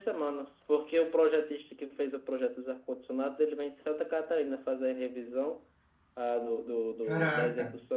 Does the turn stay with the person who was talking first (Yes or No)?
Yes